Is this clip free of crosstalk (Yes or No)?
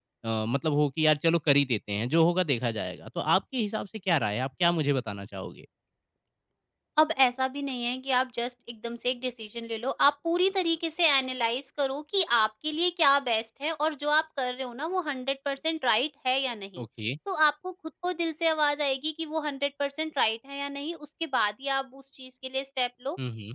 Yes